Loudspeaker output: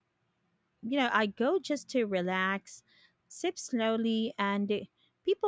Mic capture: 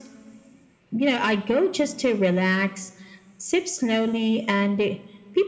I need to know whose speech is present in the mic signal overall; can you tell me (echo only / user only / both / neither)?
echo only